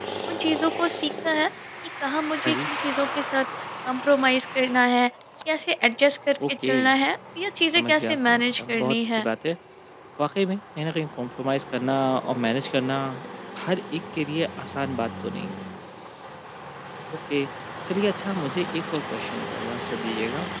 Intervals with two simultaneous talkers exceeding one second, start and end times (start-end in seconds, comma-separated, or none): 7.8-9.3